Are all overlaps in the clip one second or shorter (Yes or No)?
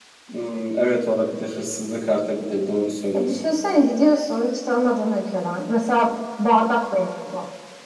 Yes